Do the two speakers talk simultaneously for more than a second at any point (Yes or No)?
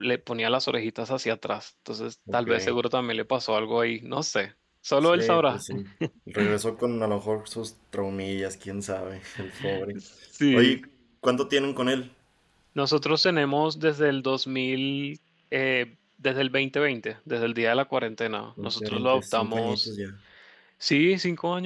Yes